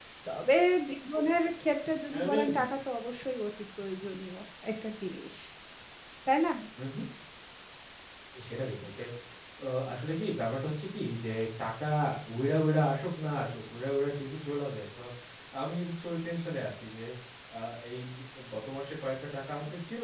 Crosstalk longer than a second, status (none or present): none